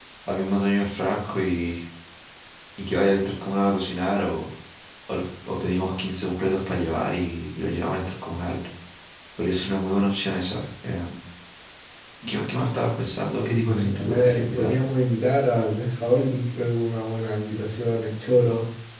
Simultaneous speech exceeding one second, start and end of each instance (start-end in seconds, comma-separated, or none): 13.4-14.8